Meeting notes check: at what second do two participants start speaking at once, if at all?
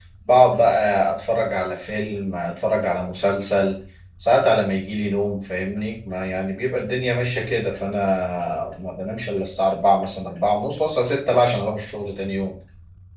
none

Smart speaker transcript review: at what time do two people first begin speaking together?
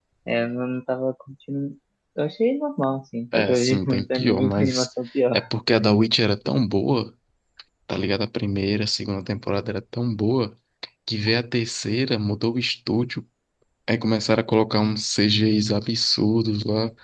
3.3 s

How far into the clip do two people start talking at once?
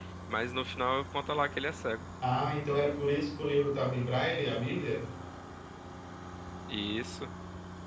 none

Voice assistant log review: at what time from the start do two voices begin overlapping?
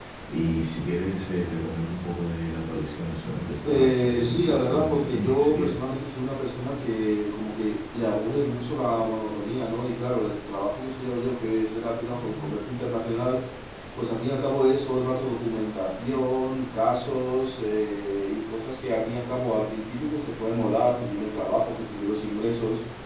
3.7 s

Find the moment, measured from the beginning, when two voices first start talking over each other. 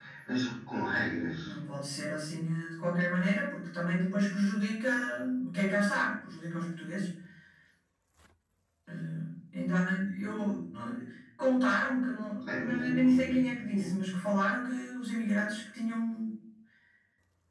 12.5 s

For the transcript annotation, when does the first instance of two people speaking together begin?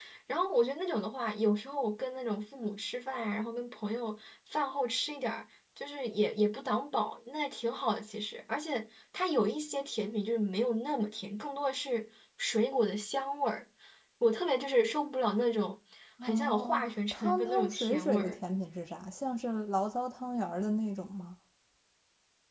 16.2 s

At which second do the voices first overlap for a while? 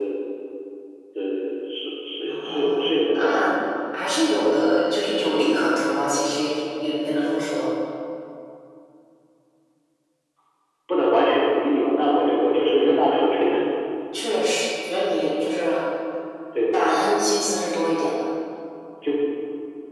2.2 s

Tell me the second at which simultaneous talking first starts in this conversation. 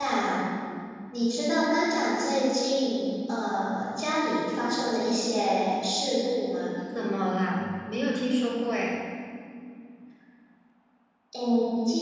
none

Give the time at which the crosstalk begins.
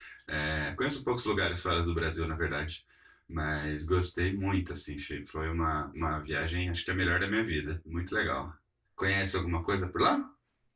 none

